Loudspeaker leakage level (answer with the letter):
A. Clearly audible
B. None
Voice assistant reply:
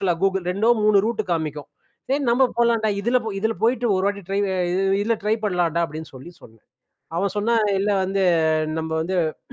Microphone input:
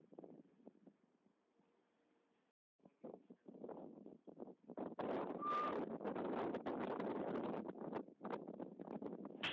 B